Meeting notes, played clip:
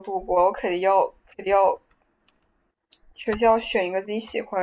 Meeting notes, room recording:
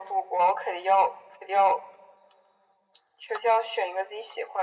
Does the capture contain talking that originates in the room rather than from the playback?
No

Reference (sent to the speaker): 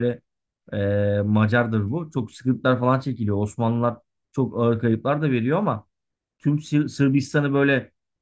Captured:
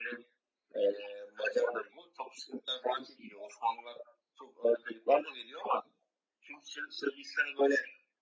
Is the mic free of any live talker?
Yes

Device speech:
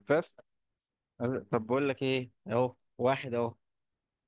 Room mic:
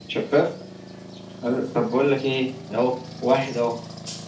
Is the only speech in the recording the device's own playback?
Yes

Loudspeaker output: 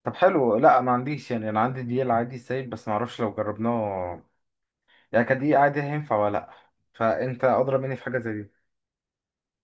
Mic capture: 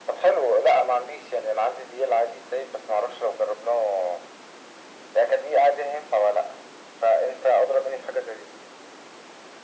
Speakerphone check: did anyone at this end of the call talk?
No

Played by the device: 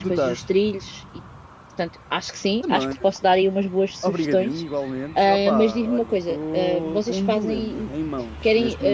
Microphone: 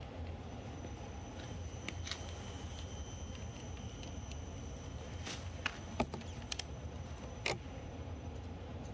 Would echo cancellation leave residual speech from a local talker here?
No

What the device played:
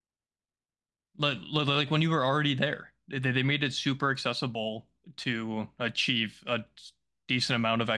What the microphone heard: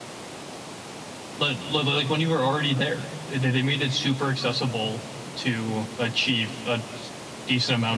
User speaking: No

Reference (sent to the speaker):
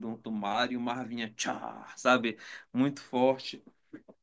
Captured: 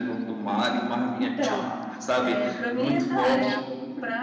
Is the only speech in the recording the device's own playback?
No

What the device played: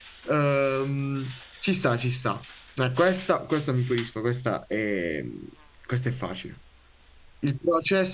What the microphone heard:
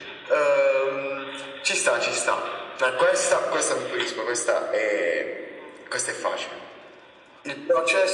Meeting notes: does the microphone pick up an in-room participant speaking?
No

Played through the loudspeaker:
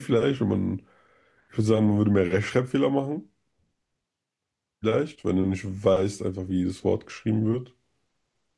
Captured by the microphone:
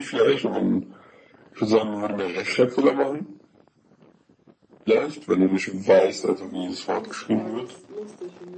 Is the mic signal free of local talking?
No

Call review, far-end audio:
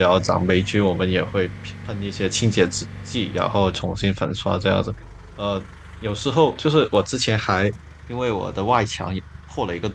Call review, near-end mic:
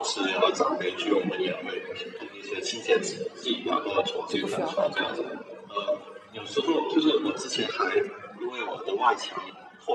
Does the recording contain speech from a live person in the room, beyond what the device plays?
Yes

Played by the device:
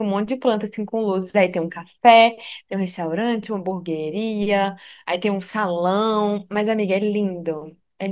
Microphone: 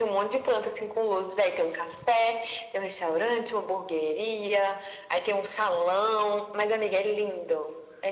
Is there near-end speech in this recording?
No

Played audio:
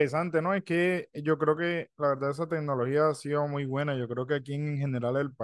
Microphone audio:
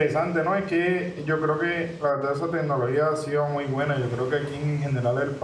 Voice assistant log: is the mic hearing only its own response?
Yes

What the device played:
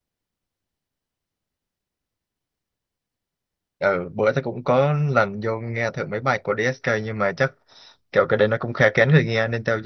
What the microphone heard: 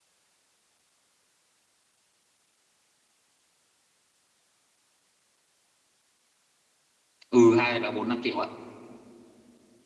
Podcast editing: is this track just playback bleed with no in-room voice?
No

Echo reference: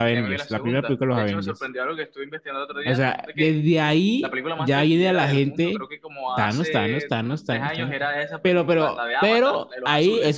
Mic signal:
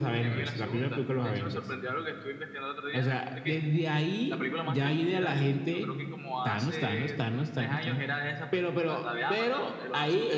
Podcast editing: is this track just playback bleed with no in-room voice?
Yes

